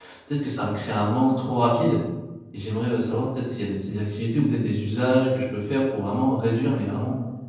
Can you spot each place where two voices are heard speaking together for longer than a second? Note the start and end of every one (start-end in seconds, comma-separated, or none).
none